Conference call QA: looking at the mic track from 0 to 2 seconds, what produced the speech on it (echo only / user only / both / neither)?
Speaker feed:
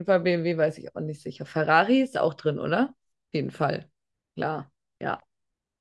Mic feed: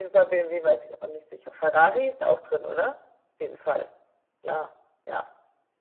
echo only